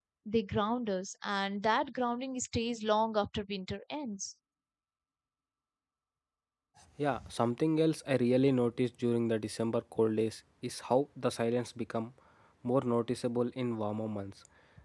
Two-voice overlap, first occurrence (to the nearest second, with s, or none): none